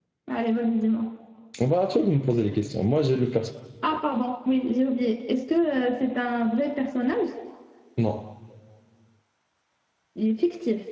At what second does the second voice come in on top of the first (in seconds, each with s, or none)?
none